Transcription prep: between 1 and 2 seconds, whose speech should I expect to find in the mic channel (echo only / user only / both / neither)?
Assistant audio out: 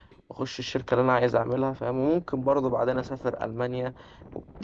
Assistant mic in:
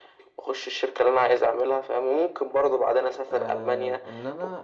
echo only